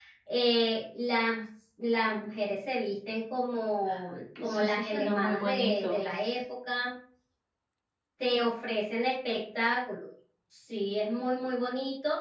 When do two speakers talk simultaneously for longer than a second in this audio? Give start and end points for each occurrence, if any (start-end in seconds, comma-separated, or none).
4.4-6.0